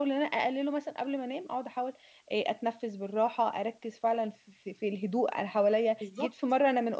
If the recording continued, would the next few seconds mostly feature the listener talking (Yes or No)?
No